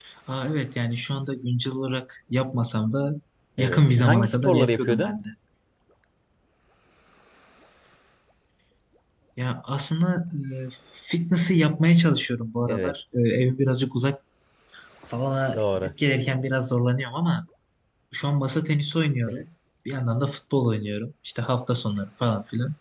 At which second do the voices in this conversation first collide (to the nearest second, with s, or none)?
4 s